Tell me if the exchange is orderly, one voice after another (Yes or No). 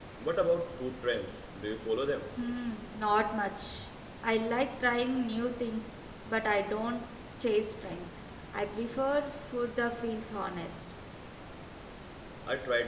Yes